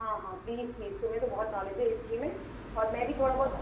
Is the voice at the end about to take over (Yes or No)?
No